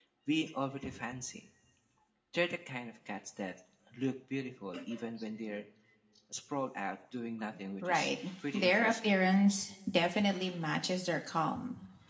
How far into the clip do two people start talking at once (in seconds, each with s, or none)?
7.8 s